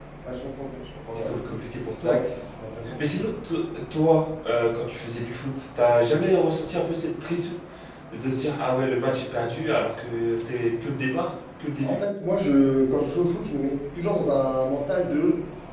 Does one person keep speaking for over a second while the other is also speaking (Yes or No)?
No